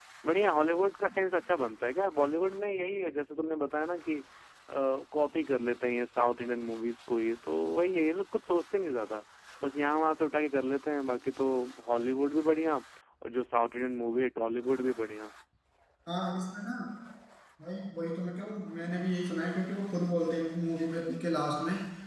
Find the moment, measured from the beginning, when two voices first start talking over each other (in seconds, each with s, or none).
none